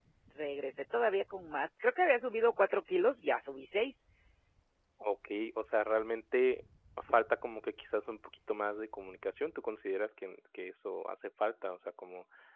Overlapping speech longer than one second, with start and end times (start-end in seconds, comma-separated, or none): none